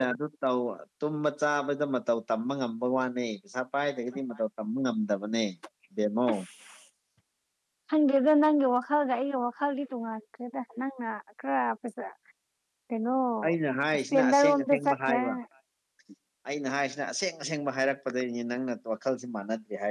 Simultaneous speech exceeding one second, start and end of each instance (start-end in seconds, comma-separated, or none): 13.9-15.2